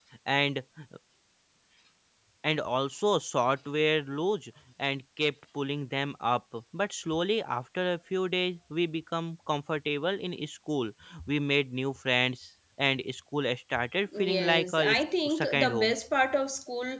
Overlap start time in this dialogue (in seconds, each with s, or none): 14.1 s